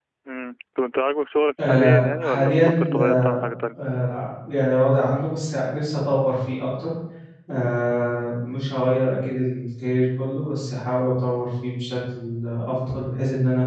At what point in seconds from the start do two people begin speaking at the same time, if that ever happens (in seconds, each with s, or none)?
1.6 s